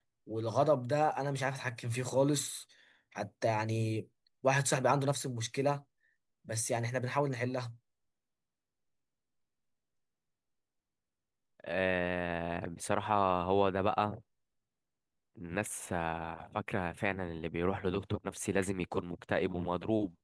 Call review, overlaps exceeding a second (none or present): none